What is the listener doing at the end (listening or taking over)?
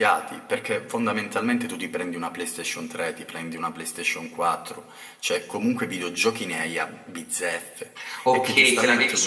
taking over